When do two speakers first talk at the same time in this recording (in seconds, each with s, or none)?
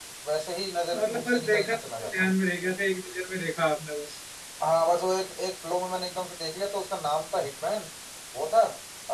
0.9 s